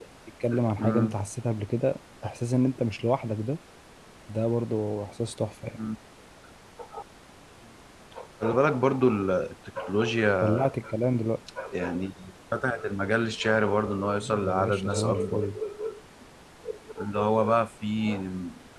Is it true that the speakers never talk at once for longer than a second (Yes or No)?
No